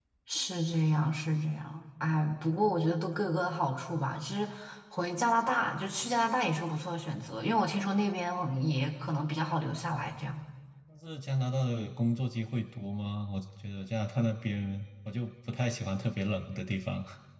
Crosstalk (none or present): none